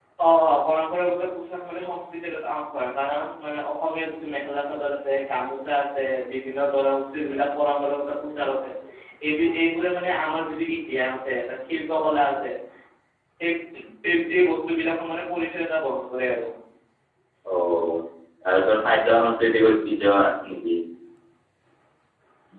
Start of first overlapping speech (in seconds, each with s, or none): none